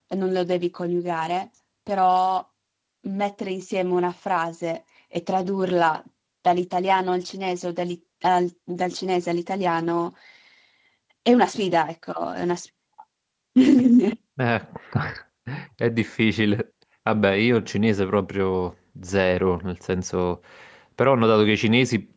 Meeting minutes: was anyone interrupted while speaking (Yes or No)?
No